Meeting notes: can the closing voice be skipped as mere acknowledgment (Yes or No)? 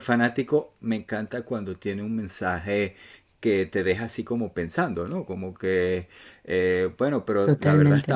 Yes